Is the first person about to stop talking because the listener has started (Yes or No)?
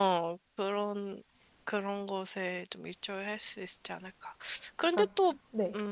No